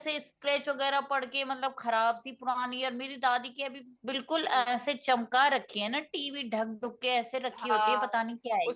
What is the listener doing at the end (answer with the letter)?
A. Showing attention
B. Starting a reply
B